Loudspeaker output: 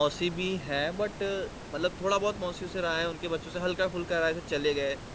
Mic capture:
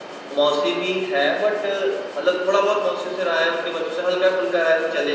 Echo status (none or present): present